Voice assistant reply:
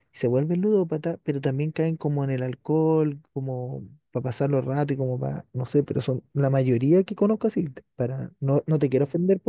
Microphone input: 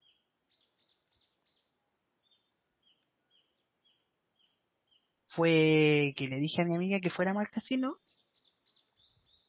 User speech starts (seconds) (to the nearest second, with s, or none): 5 s